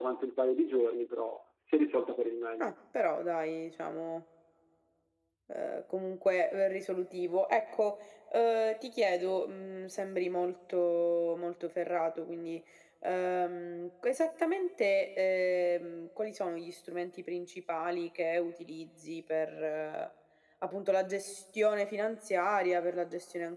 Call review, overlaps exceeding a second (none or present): none